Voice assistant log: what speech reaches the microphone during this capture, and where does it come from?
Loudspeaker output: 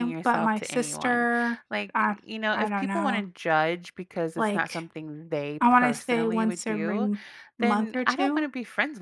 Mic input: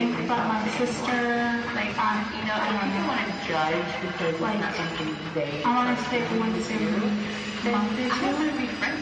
echo only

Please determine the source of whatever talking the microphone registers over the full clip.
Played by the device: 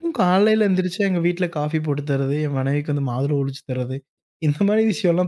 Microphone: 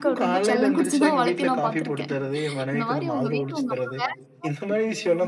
both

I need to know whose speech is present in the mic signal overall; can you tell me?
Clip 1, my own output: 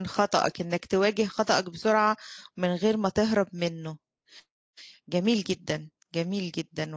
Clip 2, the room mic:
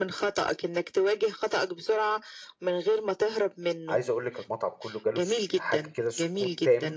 both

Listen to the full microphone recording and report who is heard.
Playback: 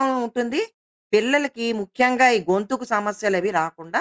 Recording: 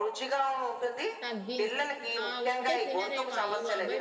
both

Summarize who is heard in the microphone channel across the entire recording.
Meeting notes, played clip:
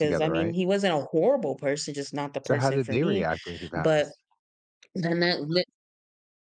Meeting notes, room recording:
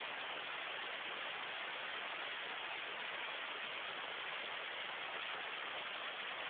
neither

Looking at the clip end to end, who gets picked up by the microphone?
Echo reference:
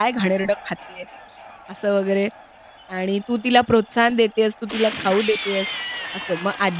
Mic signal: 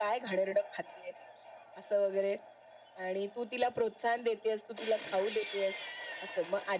echo only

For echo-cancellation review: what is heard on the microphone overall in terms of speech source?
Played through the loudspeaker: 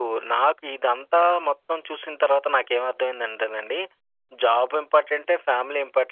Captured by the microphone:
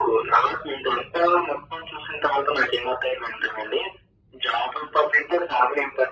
echo only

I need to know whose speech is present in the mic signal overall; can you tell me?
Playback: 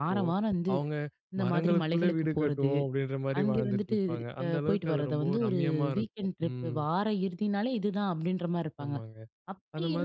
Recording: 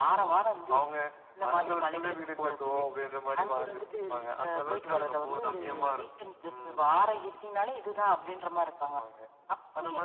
echo only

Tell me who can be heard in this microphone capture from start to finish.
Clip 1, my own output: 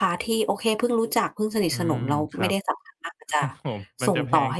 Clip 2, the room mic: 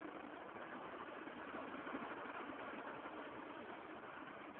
neither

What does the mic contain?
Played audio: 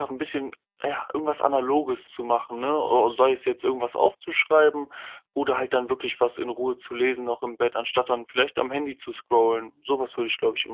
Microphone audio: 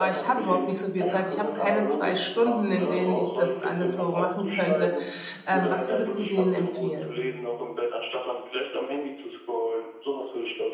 both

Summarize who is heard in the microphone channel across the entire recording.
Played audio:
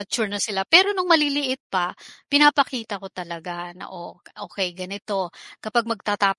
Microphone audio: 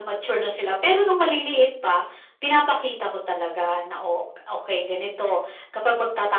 echo only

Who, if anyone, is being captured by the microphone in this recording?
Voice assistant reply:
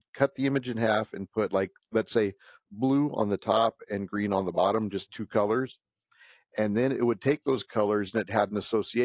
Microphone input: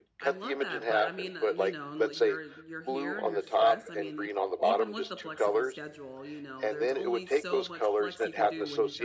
both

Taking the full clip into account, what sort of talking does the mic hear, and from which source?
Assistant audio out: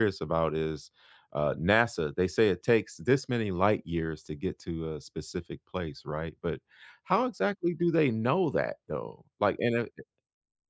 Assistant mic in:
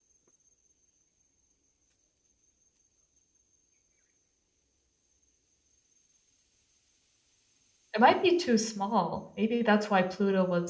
user only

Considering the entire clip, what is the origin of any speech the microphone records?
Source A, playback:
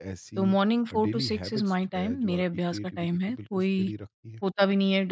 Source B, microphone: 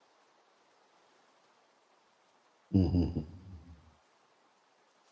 user only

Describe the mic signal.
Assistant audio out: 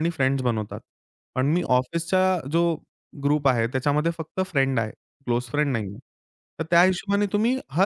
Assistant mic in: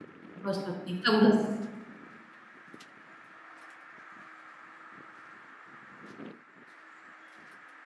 user only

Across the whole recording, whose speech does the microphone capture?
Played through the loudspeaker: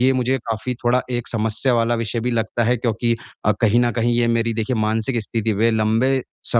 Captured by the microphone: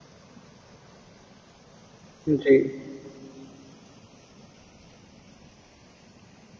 user only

